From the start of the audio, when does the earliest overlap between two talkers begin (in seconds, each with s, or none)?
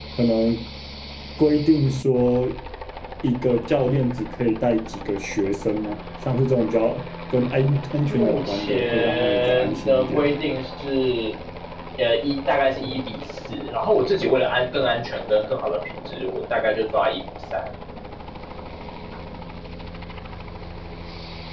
8.1 s